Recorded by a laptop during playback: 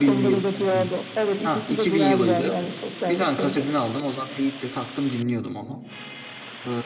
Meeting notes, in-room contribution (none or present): present